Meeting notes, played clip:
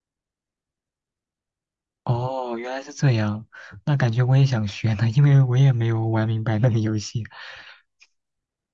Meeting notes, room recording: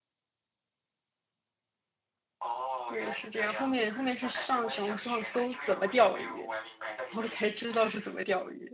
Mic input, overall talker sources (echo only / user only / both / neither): both